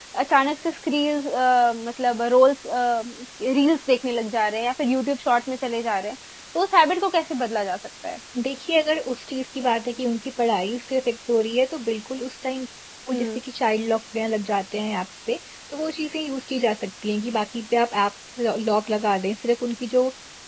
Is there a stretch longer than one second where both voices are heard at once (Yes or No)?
No